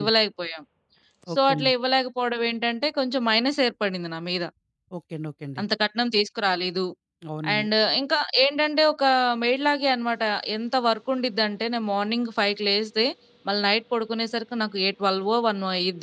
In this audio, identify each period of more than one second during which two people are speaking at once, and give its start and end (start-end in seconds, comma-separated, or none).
none